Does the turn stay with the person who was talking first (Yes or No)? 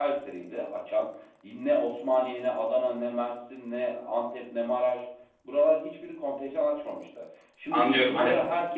No